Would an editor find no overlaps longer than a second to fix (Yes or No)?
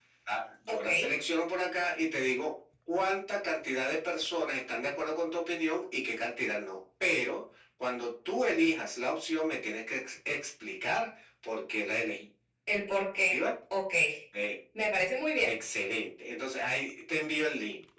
Yes